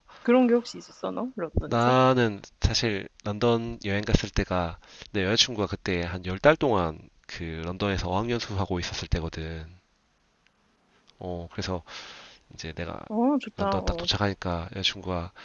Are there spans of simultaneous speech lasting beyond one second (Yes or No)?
No